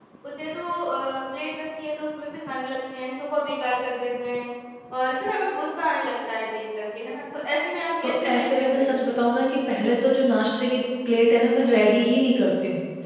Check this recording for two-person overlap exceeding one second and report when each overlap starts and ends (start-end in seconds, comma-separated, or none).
8.0-9.2